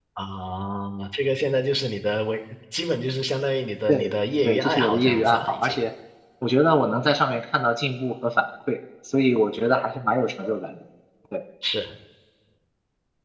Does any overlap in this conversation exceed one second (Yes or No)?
Yes